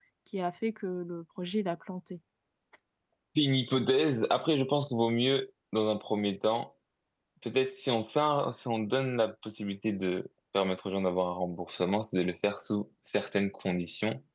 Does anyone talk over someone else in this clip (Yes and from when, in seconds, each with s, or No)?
No